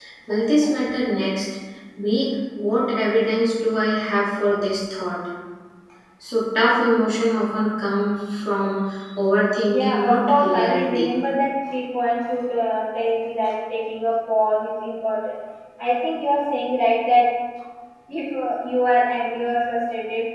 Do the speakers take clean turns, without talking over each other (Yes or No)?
No